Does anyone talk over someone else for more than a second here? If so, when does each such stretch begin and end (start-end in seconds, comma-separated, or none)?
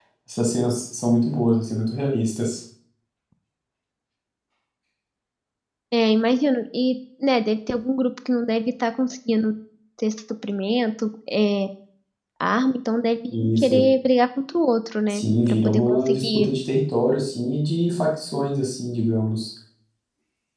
15.1-16.5